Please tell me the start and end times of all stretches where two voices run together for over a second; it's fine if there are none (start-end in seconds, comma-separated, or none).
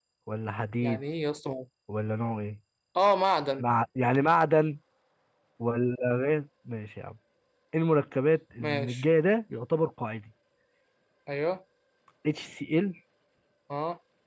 none